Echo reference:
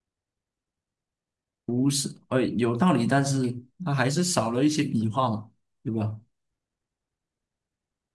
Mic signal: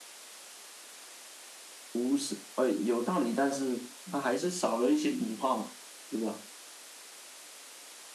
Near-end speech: none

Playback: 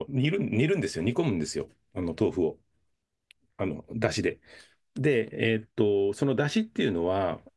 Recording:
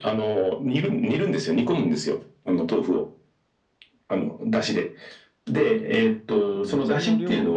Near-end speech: present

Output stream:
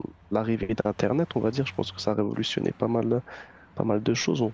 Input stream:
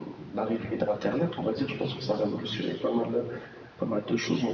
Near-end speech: present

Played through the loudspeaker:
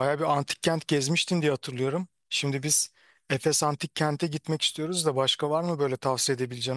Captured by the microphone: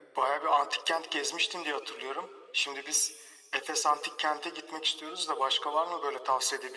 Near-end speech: none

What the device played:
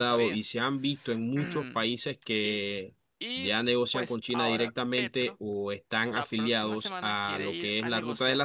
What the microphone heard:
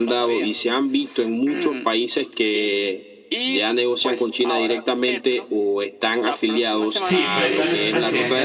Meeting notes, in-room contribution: present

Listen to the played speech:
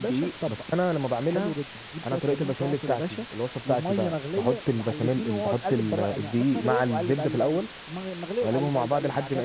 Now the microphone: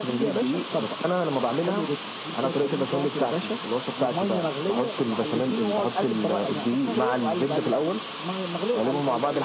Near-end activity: none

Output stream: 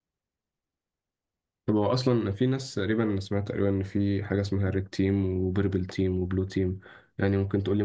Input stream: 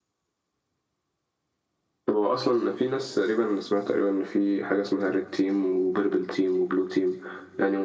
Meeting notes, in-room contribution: none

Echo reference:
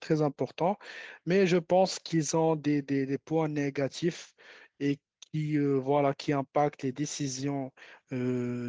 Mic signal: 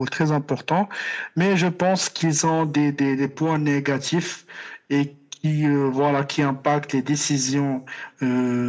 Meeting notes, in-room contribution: none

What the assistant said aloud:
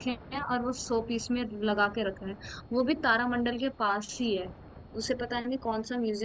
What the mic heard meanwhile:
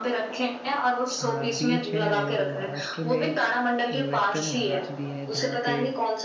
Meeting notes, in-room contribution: present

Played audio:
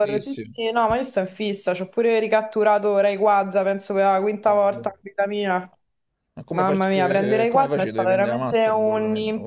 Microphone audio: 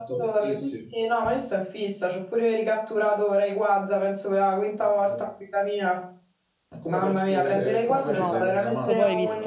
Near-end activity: present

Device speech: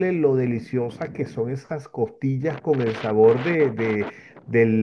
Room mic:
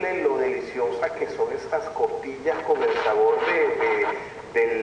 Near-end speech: none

